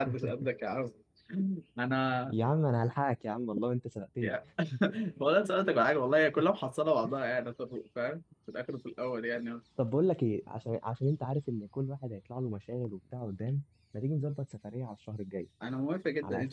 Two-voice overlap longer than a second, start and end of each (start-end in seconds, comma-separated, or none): none